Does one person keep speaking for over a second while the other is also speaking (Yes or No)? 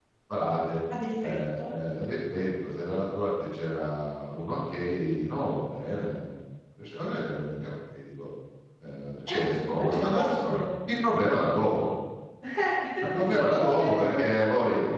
Yes